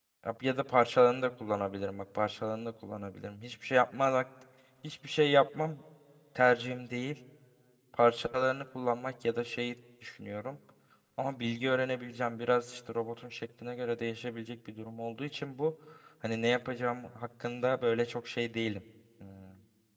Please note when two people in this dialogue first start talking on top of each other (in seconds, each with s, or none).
none